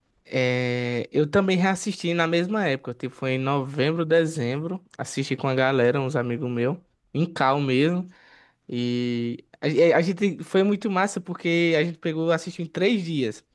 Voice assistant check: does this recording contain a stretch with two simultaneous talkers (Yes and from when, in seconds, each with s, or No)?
No